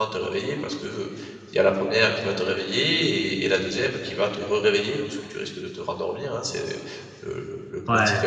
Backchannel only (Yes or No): Yes